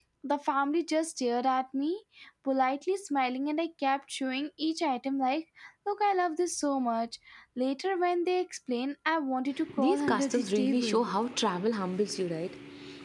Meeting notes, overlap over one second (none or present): present